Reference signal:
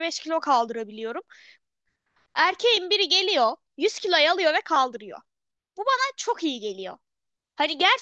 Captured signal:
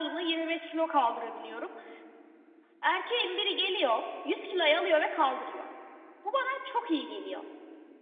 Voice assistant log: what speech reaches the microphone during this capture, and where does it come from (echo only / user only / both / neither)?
echo only